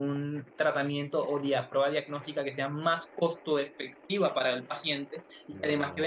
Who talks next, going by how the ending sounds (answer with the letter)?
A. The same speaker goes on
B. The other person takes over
A